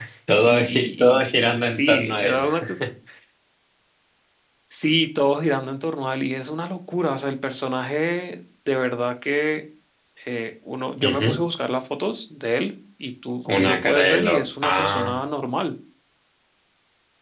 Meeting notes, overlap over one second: present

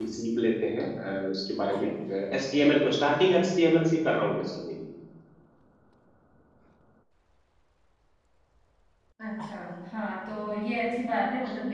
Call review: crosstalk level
none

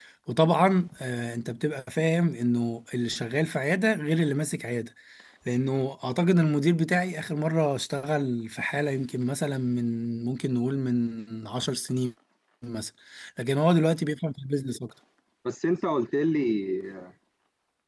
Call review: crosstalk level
none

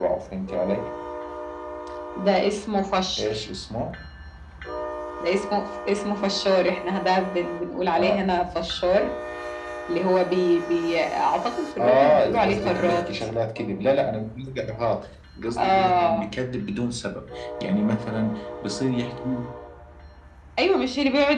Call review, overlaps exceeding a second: present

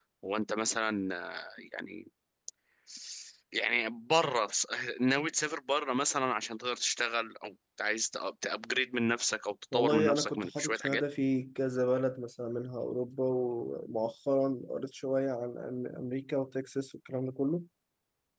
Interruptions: present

